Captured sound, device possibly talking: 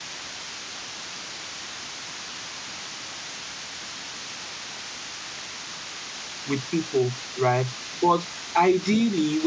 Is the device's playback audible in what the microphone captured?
No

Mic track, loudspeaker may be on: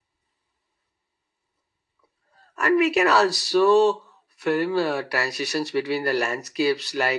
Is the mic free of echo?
No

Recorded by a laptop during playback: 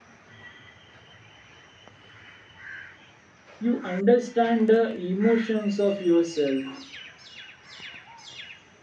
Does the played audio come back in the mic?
No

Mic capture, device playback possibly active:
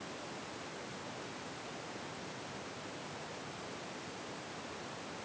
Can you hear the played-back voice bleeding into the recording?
No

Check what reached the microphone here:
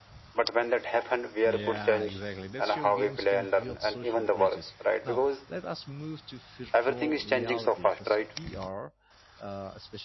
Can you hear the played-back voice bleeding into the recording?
Yes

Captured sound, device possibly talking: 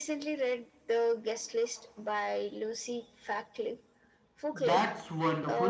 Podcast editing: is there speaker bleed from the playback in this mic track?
Yes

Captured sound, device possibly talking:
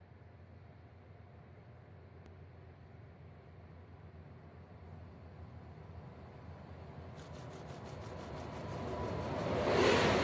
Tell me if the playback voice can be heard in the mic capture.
No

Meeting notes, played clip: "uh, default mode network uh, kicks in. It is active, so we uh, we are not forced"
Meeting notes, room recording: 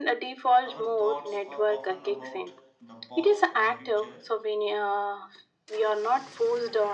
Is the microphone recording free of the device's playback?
No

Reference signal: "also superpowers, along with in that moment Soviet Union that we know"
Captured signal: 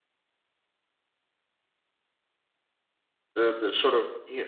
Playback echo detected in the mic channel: No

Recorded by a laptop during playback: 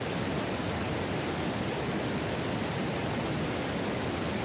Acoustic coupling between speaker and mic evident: No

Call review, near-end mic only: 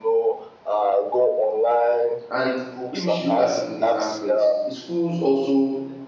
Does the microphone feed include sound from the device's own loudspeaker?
Yes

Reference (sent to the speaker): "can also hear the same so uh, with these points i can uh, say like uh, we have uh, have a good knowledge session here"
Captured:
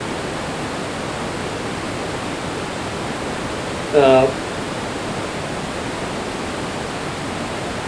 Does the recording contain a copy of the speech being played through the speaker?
No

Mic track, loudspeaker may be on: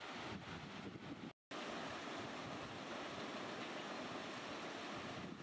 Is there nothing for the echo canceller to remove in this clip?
Yes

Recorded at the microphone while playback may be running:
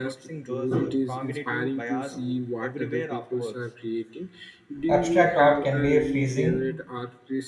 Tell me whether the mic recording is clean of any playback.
No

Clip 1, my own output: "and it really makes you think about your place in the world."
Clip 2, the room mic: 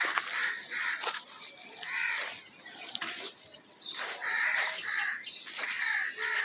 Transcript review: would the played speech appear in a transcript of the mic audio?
No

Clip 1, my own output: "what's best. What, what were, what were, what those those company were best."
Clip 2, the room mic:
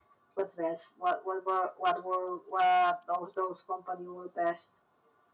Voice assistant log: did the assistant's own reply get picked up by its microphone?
Yes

